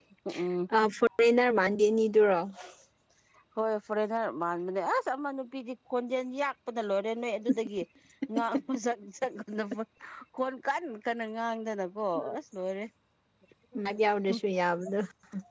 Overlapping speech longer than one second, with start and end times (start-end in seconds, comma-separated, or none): none